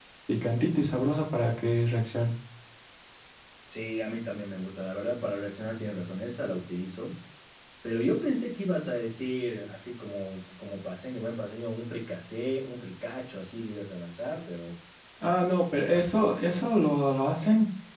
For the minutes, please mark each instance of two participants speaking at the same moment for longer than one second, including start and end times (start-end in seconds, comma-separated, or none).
none